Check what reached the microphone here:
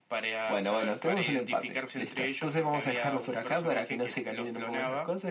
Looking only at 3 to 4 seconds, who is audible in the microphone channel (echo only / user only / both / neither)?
echo only